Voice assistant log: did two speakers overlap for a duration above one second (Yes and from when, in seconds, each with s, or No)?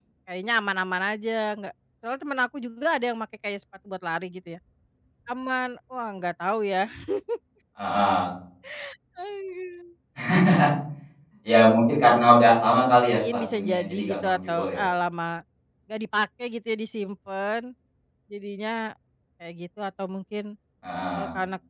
Yes, from 12.8 s